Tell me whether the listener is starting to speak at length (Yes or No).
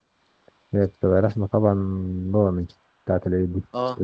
Yes